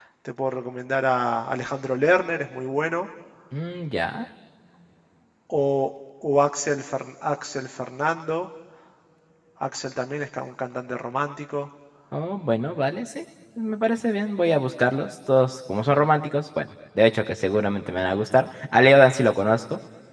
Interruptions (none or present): none